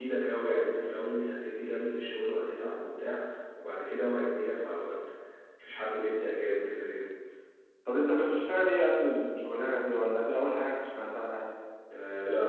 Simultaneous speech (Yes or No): No